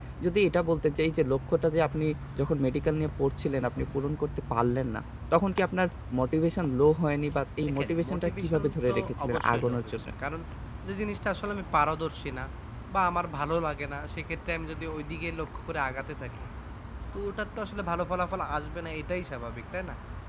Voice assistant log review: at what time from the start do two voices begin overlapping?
8 s

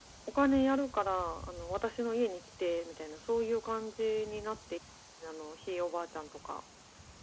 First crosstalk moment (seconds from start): none

